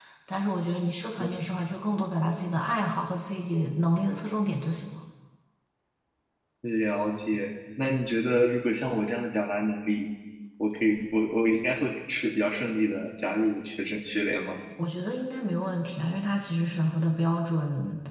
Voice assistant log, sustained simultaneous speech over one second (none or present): none